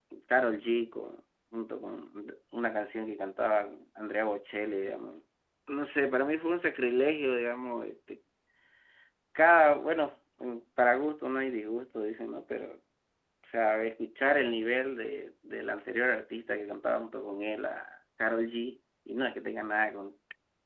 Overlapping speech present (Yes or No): No